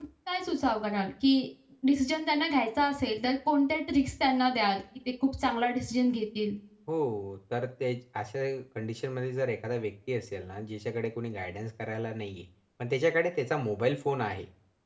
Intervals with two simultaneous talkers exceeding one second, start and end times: none

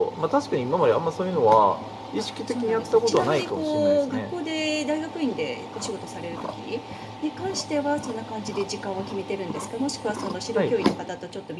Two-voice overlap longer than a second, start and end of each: 2.2-4.3

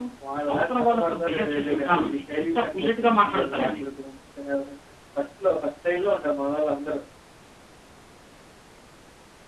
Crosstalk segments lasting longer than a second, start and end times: 0.5-3.8

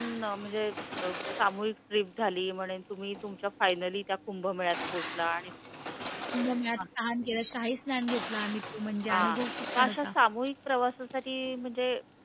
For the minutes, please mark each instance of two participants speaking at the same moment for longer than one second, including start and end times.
none

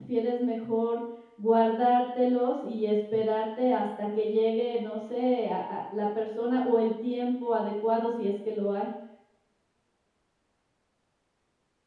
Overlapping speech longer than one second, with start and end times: none

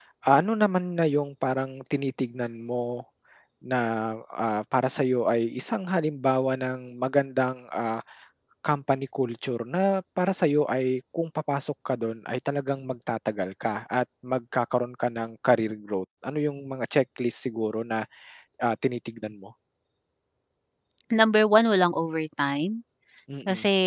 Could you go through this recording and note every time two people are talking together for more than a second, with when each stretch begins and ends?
none

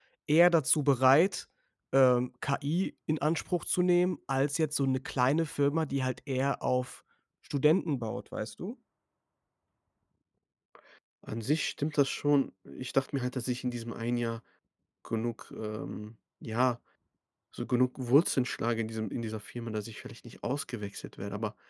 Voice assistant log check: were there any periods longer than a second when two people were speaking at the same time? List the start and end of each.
none

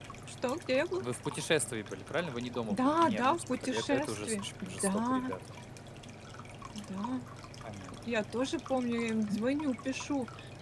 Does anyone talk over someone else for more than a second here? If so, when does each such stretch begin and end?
2.7-5.3

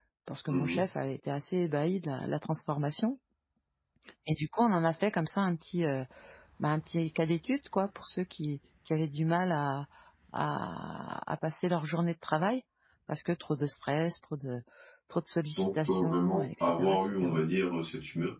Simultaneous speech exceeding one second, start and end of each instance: 15.6-17.4

